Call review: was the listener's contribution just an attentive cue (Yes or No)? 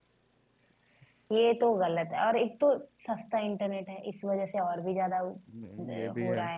No